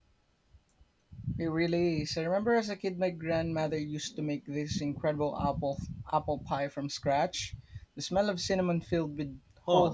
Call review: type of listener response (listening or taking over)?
taking over